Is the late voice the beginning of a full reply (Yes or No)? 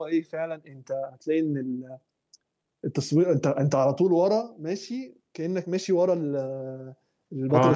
Yes